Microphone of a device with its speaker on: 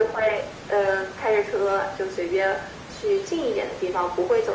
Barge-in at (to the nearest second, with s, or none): none